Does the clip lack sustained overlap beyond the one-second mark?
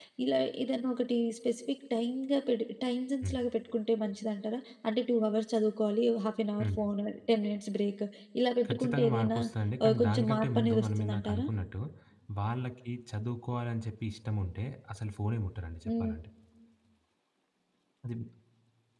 No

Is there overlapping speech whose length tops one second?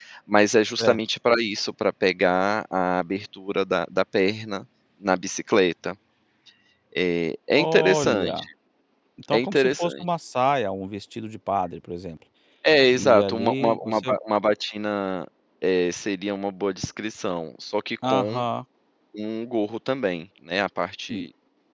Yes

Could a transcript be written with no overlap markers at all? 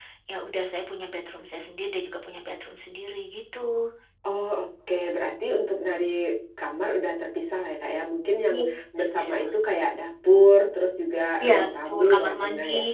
No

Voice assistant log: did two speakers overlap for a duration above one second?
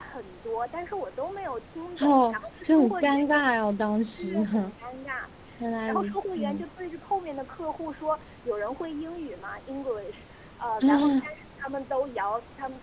Yes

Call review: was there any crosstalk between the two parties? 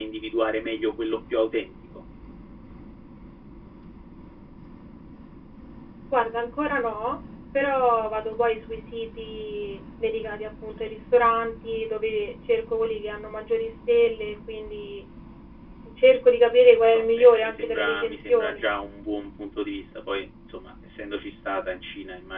Yes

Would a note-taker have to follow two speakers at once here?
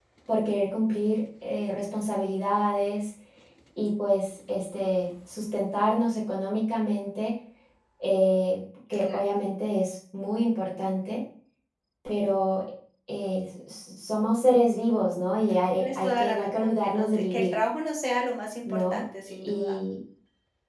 Yes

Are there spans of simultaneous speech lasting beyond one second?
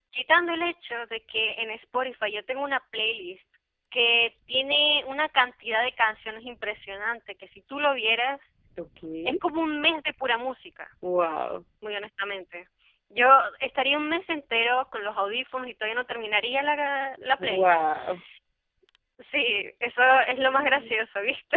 No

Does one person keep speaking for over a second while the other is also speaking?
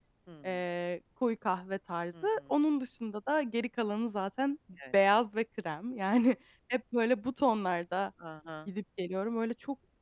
No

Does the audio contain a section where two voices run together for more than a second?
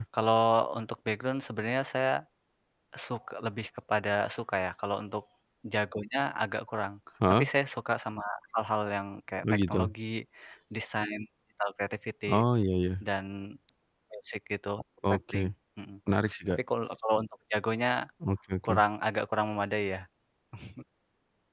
No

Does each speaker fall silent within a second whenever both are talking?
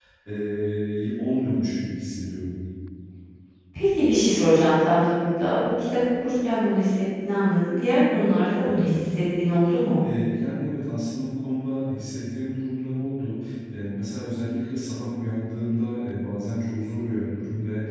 Yes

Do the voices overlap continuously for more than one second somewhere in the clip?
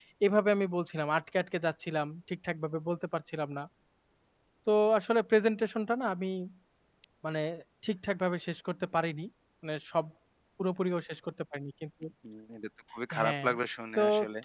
No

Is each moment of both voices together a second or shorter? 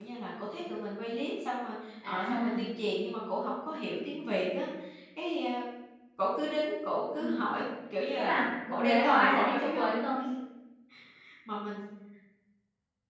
No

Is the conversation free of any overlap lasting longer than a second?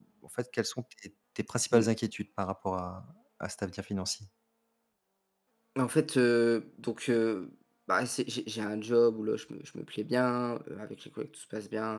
Yes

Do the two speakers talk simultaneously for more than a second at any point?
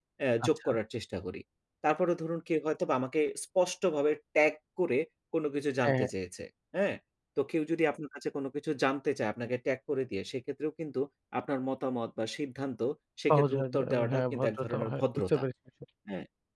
Yes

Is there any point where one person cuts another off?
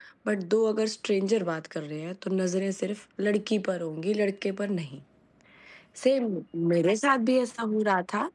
No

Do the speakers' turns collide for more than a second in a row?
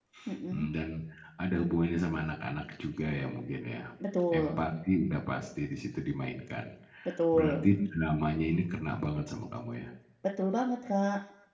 No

